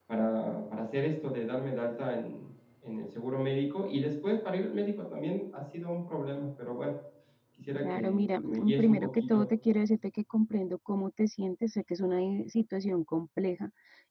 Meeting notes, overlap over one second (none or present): present